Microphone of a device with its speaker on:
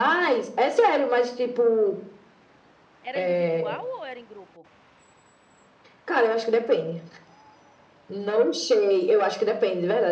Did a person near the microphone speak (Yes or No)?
Yes